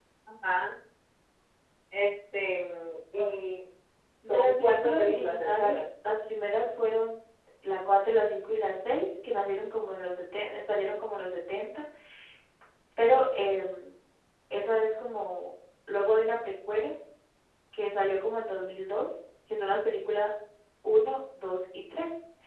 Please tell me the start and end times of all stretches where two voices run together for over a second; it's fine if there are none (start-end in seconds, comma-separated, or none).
4.2-5.8